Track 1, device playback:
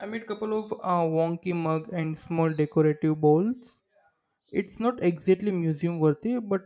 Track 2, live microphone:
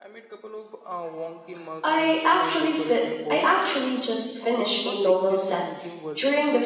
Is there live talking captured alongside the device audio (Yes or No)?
Yes